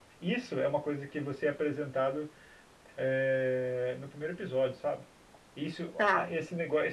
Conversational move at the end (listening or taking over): listening